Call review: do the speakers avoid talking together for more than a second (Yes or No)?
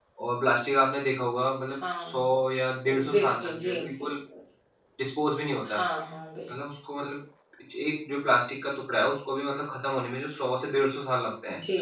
No